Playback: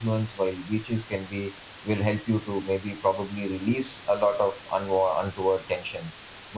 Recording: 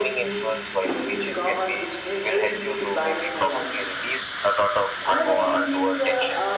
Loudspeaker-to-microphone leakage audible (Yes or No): Yes